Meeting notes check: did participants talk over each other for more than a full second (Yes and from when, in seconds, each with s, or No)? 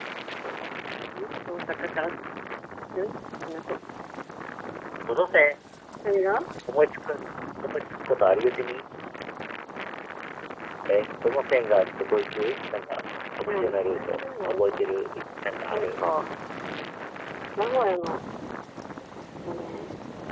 Yes, from 13.5 s